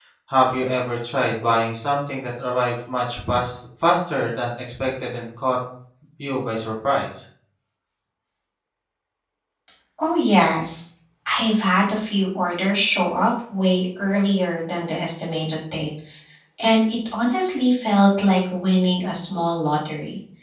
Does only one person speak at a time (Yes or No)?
Yes